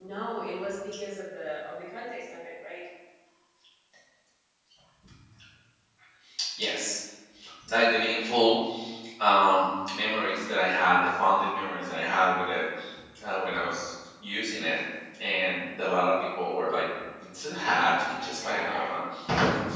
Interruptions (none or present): present